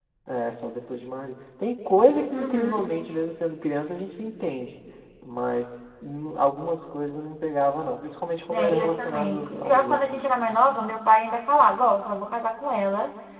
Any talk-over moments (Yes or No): Yes